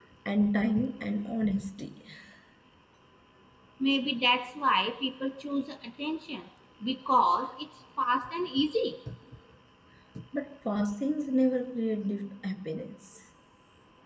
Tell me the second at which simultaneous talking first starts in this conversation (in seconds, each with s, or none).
none